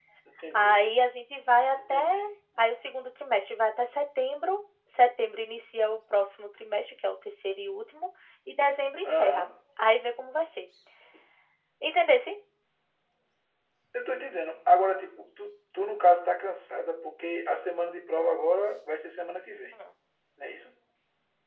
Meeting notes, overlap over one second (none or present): none